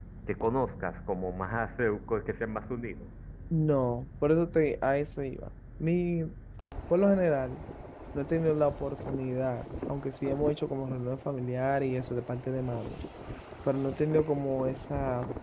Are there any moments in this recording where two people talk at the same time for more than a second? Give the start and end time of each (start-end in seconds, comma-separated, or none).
none